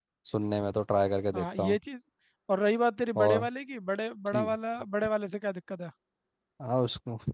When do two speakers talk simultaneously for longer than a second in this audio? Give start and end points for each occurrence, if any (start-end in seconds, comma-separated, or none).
none